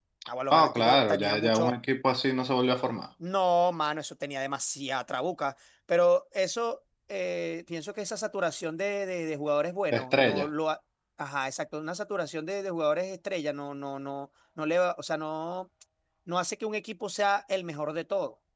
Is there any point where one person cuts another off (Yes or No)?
Yes